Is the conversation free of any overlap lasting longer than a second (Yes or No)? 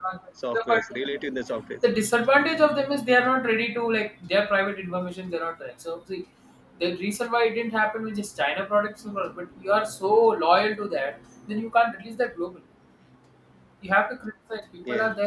Yes